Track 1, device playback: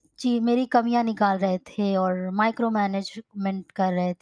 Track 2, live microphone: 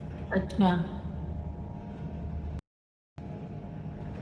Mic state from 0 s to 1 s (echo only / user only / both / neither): user only